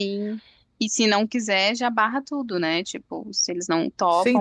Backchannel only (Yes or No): No